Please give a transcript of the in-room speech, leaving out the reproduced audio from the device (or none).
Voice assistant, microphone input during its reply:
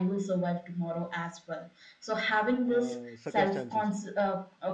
uh, circumstances